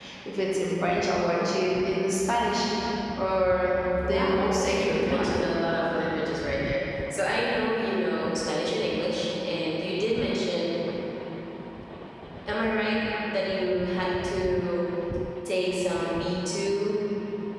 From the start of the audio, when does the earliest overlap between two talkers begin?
4.0 s

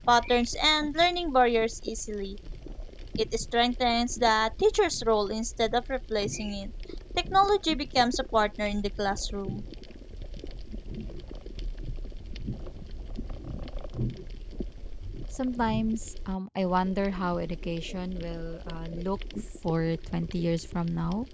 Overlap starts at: none

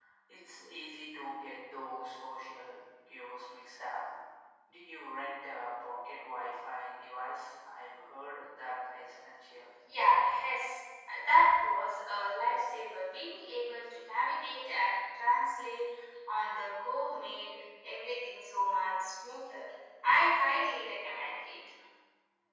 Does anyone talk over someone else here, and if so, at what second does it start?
none

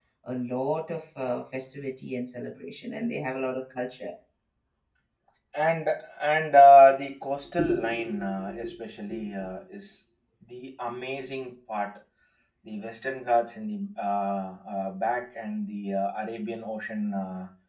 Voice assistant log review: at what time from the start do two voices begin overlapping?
none

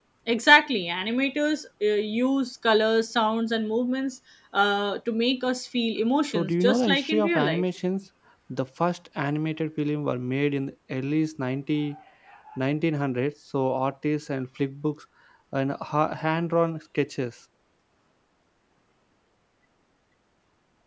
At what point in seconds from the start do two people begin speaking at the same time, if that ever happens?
6.2 s

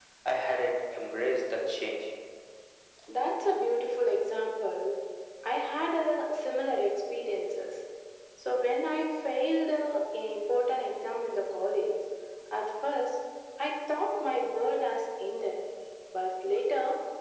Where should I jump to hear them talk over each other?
none

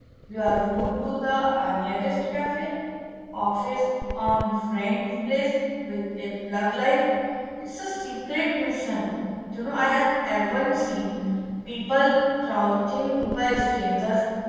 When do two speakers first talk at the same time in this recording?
none

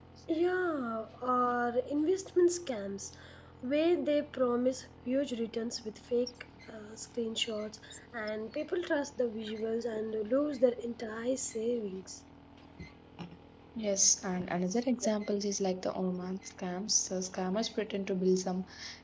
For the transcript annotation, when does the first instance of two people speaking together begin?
none

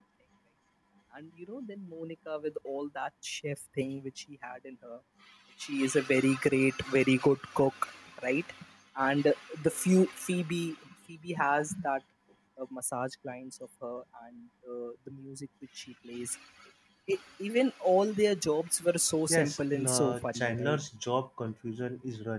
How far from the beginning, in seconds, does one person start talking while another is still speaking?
19.3 s

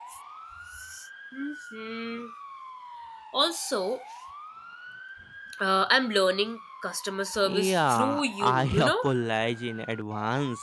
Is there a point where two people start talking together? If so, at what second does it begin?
7.4 s

